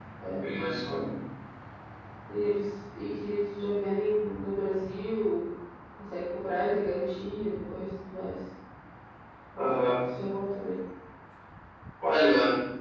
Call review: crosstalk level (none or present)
none